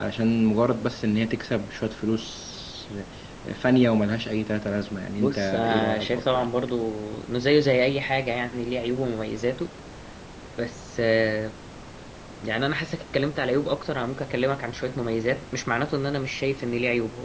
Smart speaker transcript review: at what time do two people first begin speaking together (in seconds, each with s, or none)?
5.2 s